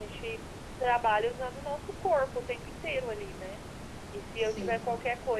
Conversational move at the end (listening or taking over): listening